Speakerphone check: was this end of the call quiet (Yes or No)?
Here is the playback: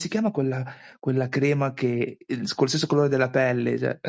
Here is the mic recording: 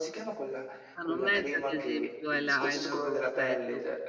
No